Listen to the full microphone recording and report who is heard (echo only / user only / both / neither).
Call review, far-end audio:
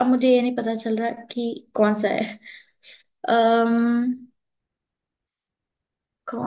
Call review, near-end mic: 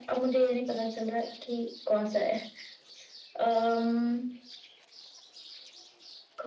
echo only